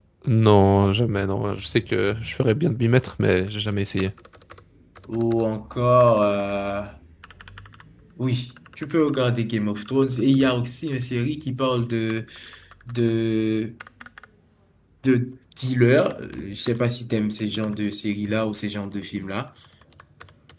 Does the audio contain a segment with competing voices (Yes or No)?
No